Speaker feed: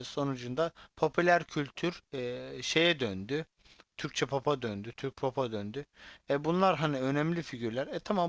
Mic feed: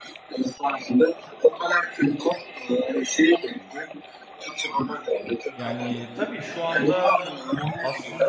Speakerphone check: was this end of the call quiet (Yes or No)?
No